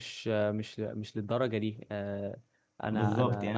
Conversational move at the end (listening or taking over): taking over